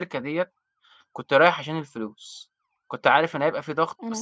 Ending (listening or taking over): listening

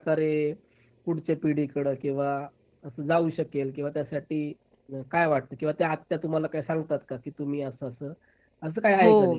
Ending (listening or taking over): taking over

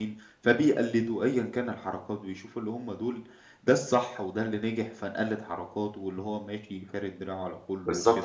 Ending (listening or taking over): taking over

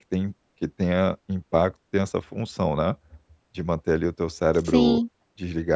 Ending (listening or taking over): listening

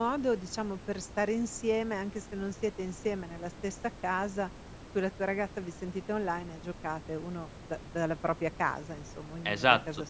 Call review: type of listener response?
taking over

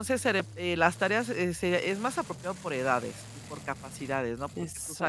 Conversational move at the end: listening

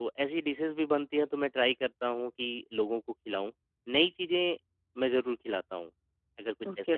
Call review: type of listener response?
taking over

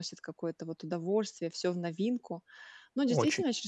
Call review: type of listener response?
listening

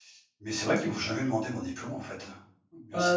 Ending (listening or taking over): taking over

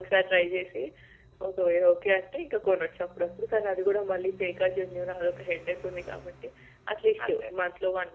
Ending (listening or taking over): listening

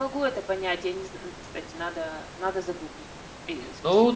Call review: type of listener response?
taking over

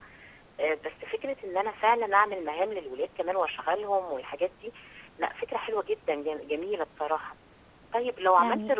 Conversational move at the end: listening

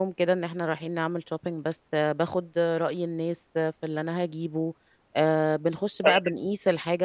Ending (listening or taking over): listening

